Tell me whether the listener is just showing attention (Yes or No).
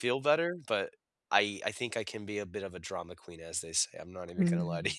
No